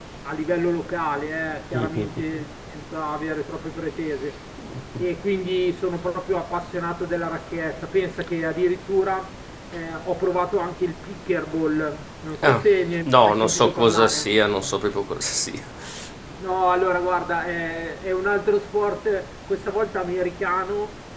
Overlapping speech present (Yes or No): Yes